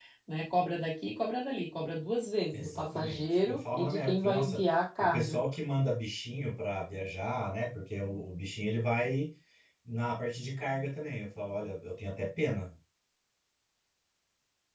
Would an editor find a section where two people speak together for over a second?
Yes, from 2.5 s

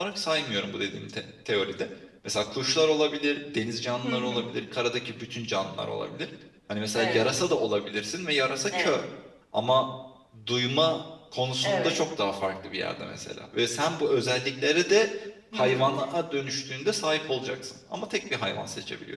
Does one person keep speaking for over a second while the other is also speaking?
No

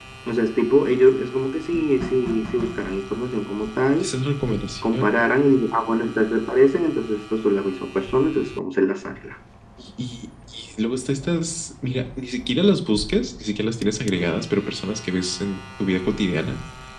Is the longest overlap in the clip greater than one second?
No

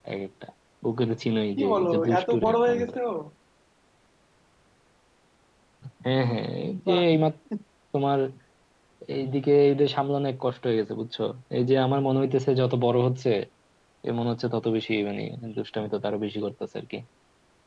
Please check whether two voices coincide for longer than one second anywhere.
Yes, from 1.6 s

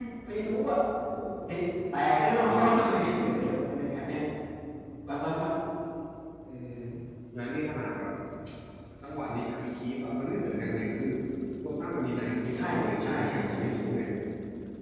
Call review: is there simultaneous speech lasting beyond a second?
Yes, from 2.3 s

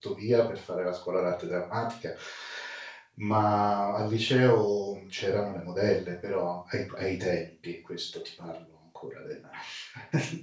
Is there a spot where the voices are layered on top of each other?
No

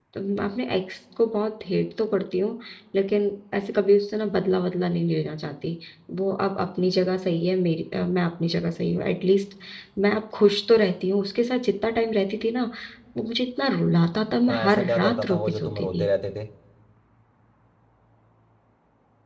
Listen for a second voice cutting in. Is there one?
Yes, from 14.5 s

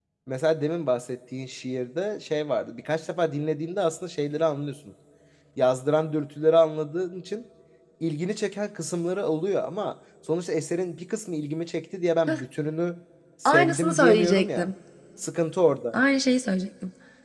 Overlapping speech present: Yes, from 13.4 s

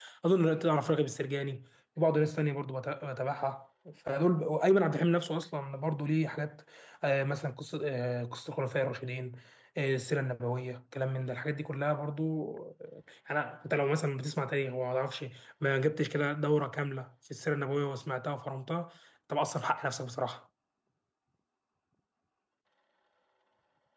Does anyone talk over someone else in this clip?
No

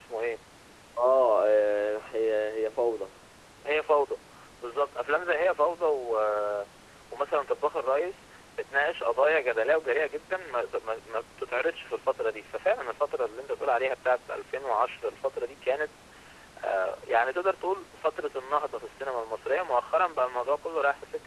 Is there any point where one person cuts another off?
No

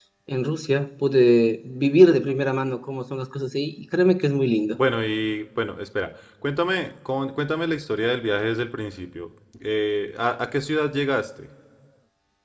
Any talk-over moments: No

